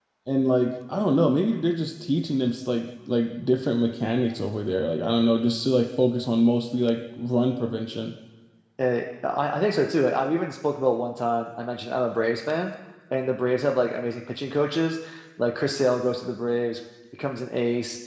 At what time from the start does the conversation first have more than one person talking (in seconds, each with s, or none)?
none